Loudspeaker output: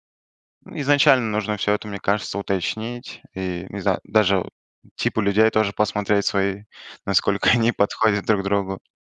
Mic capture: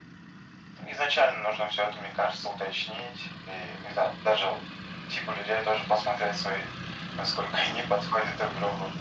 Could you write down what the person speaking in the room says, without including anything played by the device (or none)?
none